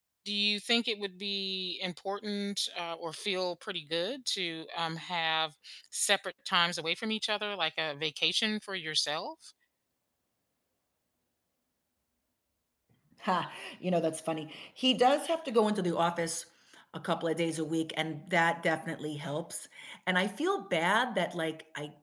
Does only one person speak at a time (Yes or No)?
Yes